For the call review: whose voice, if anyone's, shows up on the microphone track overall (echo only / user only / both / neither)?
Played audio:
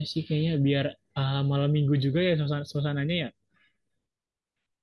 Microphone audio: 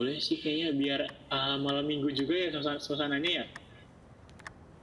echo only